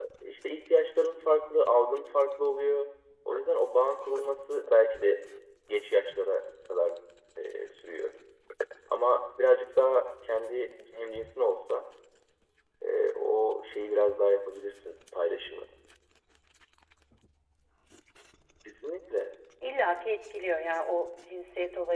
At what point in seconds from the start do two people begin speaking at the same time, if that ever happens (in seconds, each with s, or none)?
none